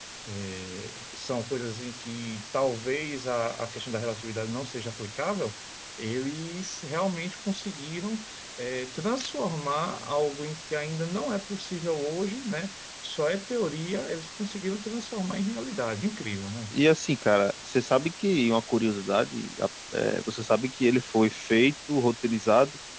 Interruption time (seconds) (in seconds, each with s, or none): none